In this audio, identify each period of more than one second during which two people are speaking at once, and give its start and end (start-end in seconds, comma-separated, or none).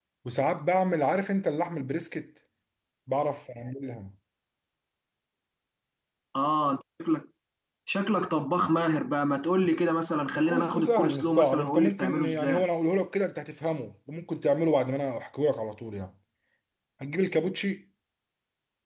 10.4-12.6